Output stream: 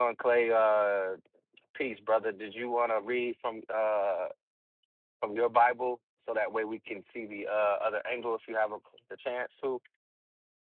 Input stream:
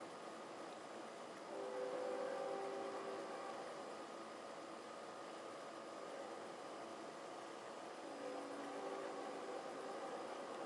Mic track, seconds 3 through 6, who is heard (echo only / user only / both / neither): neither